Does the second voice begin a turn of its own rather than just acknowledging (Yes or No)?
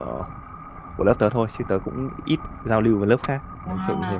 Yes